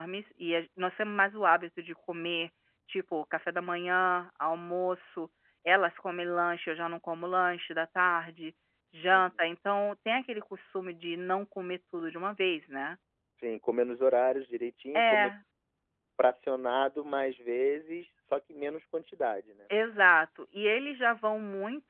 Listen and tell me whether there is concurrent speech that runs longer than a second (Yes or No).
No